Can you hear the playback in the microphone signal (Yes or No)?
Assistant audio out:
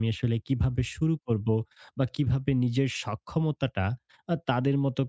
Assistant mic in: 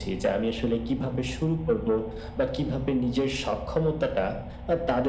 Yes